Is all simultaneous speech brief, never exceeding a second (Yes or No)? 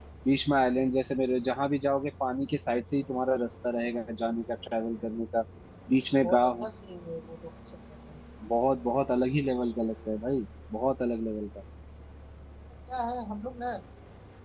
Yes